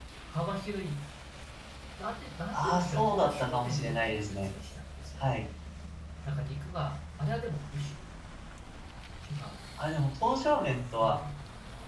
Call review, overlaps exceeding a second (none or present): present